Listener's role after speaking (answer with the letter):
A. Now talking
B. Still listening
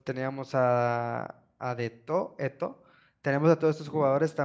B